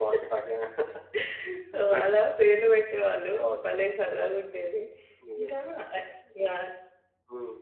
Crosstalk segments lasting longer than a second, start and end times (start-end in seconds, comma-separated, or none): none